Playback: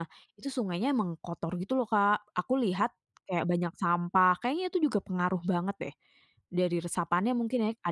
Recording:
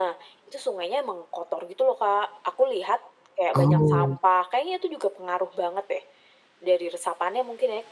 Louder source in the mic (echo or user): user